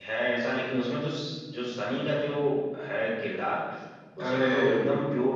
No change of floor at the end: Yes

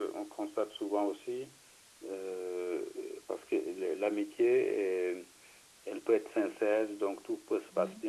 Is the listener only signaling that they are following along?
Yes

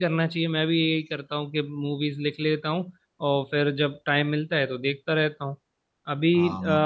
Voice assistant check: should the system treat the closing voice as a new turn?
No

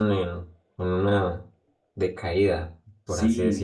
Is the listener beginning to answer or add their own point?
Yes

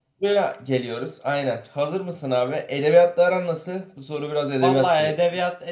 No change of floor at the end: No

